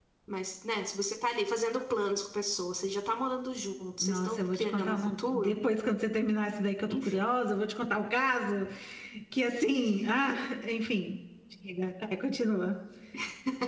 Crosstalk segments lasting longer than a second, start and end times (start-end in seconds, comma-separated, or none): 4.0-5.6